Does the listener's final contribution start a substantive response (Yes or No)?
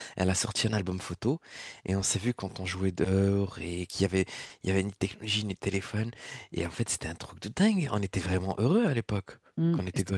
Yes